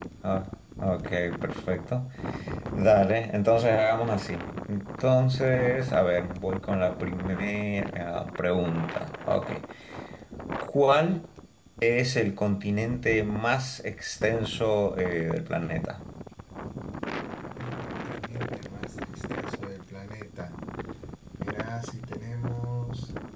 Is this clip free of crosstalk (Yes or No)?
Yes